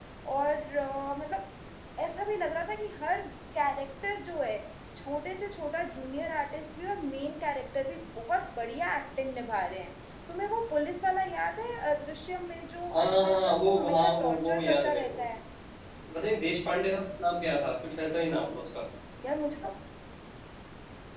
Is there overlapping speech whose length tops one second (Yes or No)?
Yes